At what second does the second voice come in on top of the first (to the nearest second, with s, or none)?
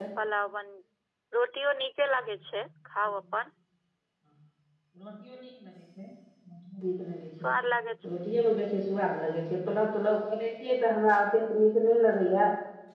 none